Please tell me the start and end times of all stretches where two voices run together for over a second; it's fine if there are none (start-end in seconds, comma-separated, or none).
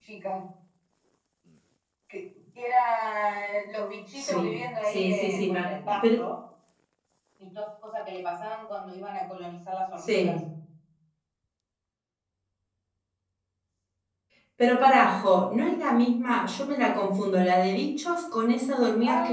4.2-6.2